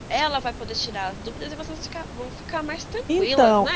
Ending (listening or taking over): taking over